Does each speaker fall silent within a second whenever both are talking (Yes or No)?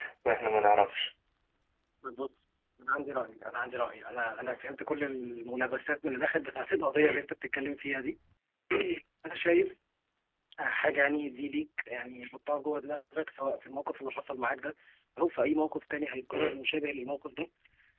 Yes